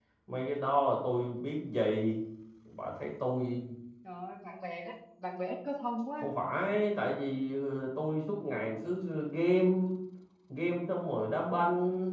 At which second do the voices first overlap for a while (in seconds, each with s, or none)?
none